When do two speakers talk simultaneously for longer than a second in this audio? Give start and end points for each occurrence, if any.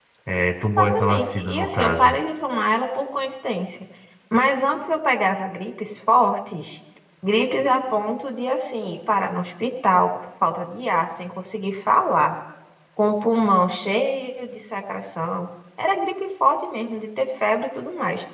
0.8-2.2

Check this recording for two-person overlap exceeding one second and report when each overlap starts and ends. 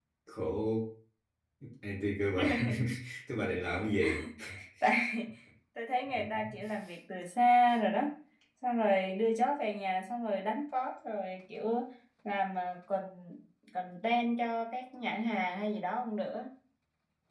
none

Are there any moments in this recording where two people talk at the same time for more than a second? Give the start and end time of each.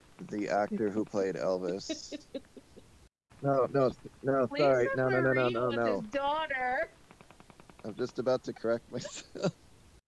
4.6-6.0

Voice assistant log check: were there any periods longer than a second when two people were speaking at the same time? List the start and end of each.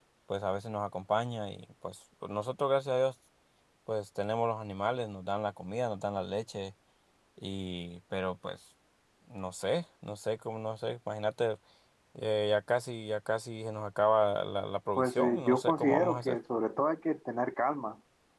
15.0-16.4

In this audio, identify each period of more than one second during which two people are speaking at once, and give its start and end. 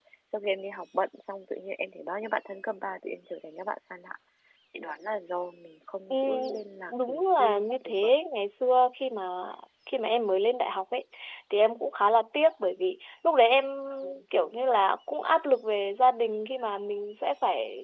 6.9-8.1

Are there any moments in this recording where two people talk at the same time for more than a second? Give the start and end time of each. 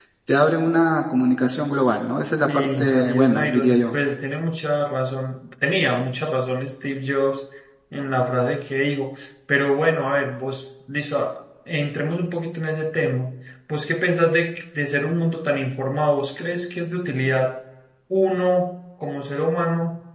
2.5-3.9

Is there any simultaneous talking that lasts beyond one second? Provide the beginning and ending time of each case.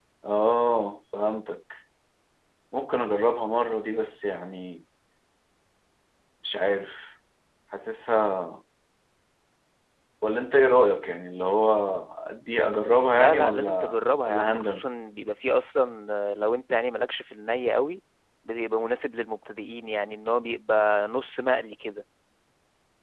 13.1-14.8

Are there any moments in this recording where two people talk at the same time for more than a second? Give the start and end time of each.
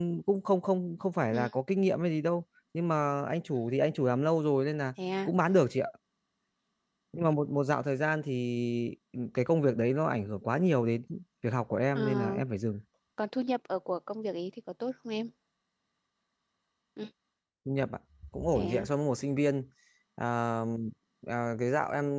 none

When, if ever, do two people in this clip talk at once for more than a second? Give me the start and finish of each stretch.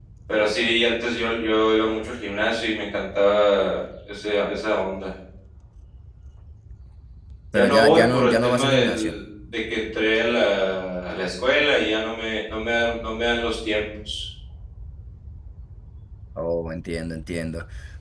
7.5-9.2

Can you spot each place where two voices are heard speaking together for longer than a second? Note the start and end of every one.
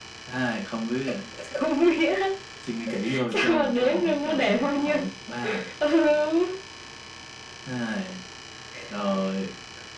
3.3-5.0

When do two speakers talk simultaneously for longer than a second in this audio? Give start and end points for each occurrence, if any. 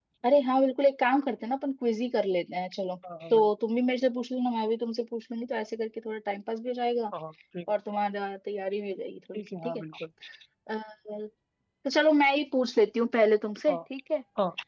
none

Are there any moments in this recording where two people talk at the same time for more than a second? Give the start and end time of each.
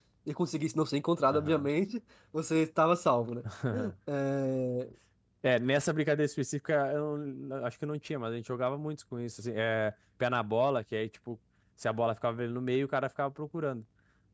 none

